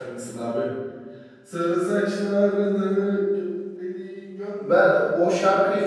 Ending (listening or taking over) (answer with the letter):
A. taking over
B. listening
A